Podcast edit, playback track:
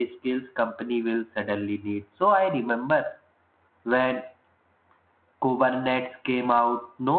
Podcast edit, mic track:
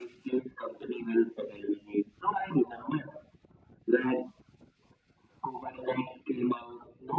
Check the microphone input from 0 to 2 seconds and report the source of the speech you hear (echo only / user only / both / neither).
echo only